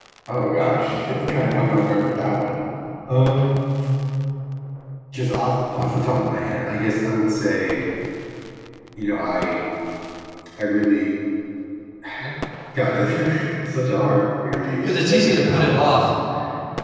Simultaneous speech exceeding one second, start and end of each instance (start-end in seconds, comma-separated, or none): 14.8-16.1